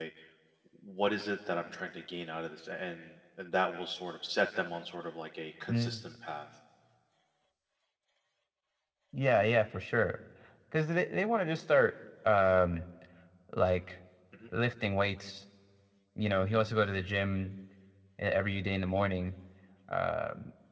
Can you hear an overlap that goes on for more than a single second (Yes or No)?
No